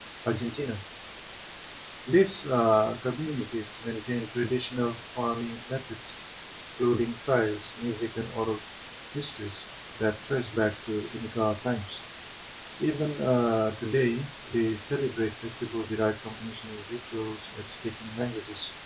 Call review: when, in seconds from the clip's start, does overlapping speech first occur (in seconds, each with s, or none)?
none